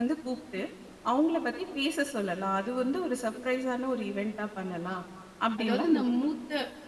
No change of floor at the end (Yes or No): No